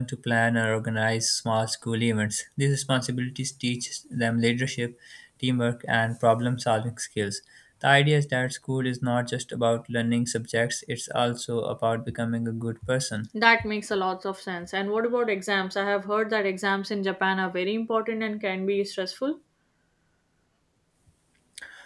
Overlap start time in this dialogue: none

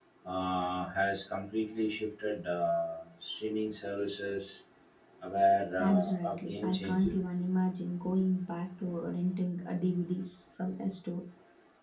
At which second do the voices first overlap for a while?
5.8 s

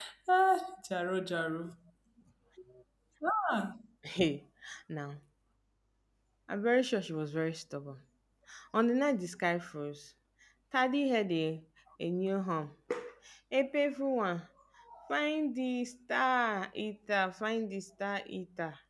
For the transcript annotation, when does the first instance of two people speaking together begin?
none

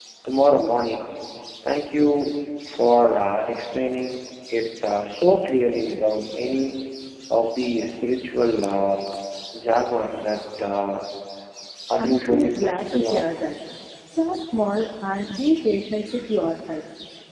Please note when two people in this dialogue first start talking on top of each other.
12.0 s

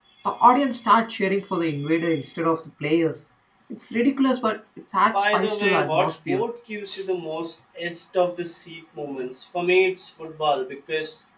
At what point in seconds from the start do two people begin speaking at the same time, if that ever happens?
5.1 s

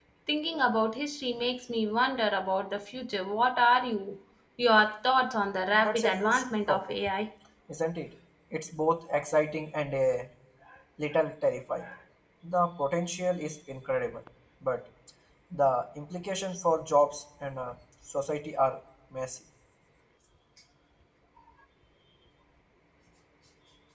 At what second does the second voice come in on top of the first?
5.7 s

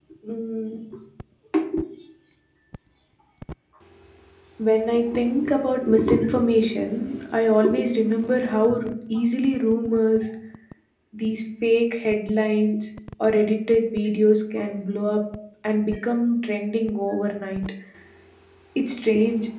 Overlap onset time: none

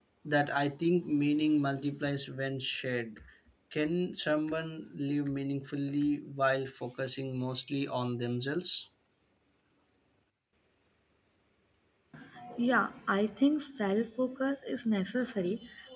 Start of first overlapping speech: none

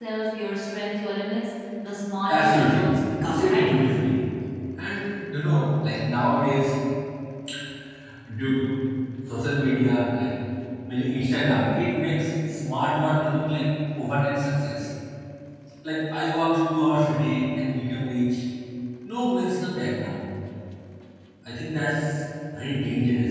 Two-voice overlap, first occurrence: 2.3 s

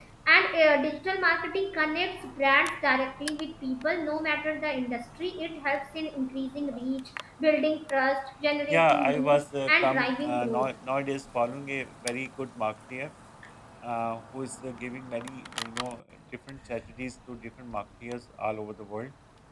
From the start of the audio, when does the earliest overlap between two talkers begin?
8.7 s

